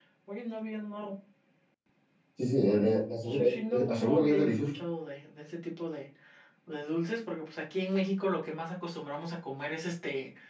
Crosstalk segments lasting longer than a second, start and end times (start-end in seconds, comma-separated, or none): 3.2-4.7